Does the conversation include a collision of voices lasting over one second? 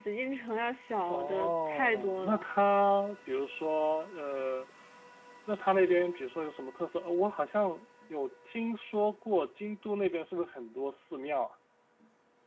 Yes, from 1.1 s

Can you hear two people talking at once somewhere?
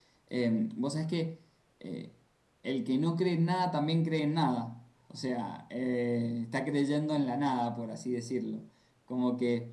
No

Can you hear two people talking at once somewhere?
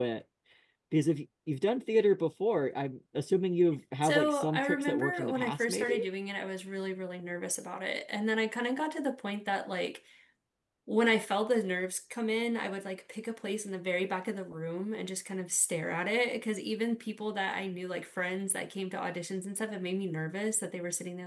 Yes, from 4.0 s

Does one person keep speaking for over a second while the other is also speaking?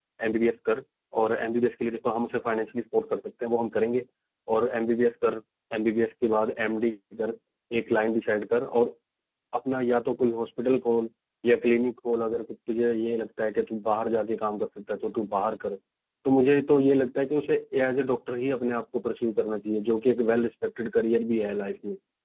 No

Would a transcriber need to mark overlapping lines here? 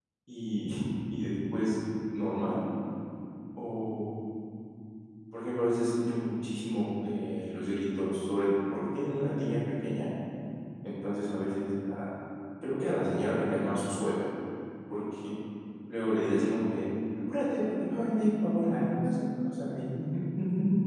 No

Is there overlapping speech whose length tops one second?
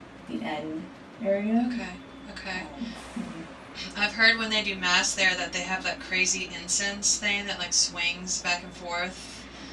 No

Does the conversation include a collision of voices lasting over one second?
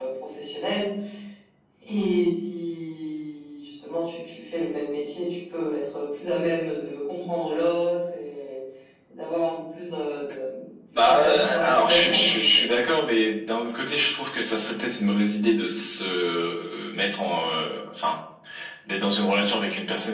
Yes, from 10.9 s

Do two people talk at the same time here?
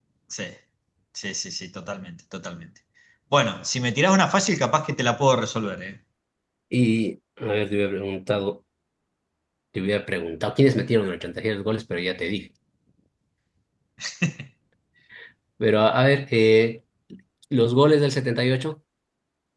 No

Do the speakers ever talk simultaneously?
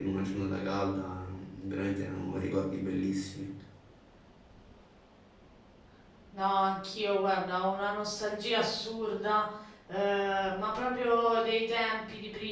No

